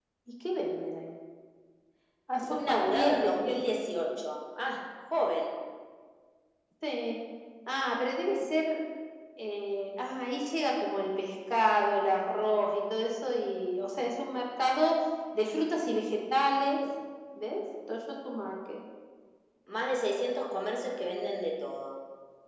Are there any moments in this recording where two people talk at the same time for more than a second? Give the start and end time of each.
2.5-3.8

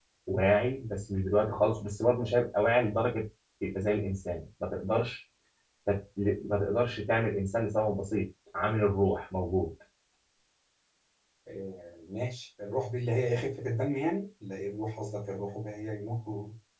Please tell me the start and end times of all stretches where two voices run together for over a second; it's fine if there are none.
none

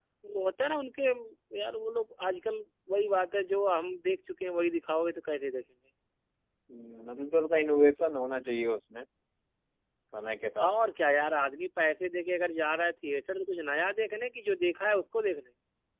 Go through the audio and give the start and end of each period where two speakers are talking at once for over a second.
none

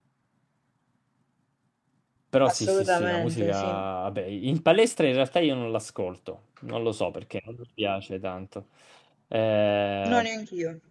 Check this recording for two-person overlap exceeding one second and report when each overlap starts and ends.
2.5-3.8

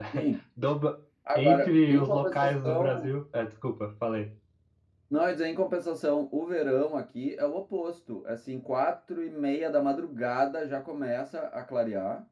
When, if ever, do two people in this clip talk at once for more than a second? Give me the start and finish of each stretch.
1.4-3.1

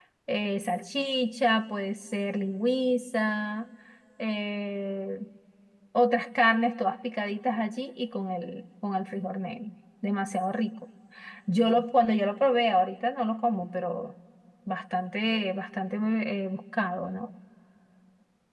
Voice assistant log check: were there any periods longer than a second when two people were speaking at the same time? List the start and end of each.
none

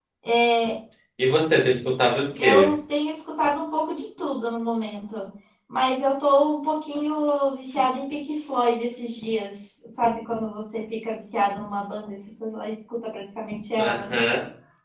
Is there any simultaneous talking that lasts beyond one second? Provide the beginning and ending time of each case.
none

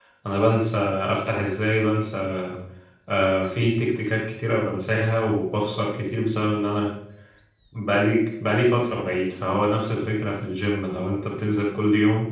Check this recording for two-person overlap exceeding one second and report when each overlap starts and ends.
none

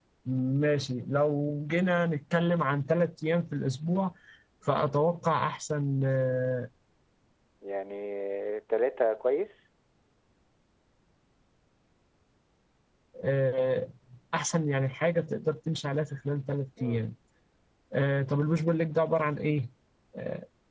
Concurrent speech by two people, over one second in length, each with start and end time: none

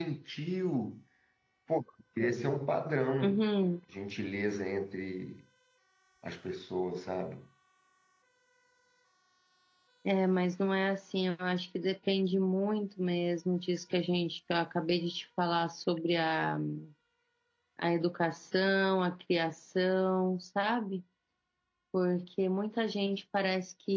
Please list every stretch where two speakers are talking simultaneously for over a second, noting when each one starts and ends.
none

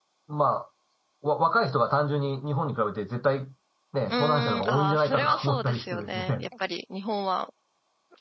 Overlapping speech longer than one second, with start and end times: 4.1-6.5

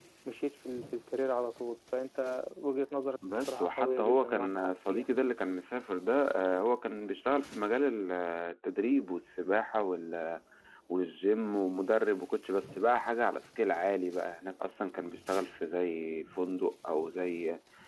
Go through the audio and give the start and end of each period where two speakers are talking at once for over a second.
3.4-5.1

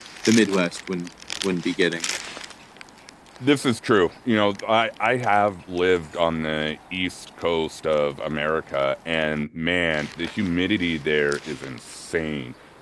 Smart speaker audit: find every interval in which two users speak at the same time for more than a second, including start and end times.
none

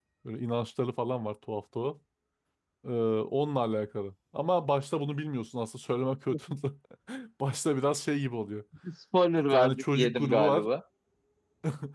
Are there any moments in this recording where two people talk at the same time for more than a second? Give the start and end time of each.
9.4-10.6

